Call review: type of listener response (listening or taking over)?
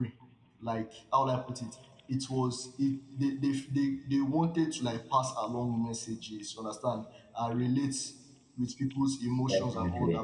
listening